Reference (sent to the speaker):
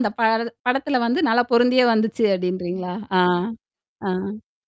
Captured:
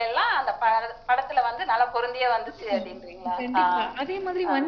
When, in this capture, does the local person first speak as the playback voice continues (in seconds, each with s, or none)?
2.5 s